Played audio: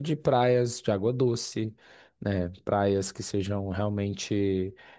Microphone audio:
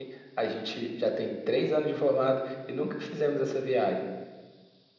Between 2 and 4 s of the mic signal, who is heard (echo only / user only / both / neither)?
user only